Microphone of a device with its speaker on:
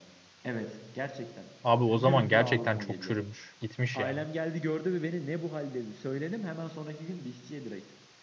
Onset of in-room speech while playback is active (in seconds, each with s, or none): 1.6 s